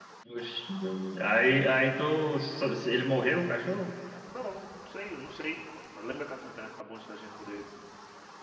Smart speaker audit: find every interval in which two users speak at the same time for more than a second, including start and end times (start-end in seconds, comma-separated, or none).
none